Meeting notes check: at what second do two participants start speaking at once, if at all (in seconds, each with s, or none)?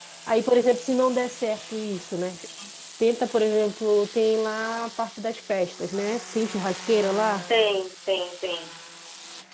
none